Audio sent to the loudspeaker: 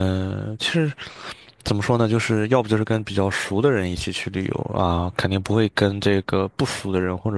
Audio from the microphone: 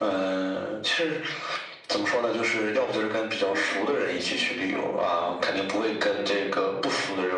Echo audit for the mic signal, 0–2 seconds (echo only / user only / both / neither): echo only